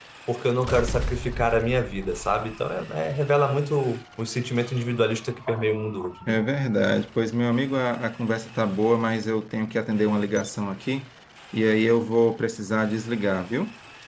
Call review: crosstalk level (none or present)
none